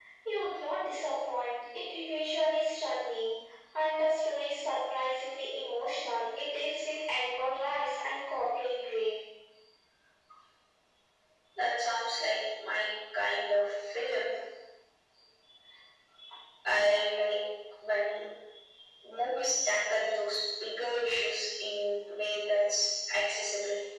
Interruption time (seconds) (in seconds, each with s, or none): none